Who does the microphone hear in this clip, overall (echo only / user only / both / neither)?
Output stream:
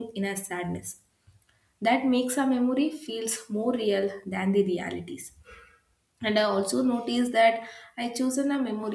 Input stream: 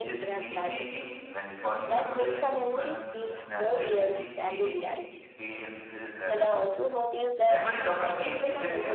both